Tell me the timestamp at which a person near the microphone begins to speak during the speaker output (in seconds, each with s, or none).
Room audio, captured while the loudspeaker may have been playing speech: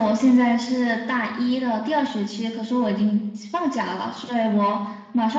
none